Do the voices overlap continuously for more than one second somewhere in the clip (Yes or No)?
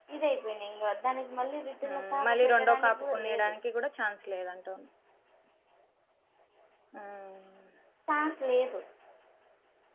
Yes